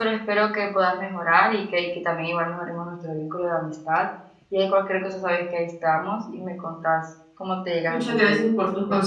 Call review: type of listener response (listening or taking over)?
taking over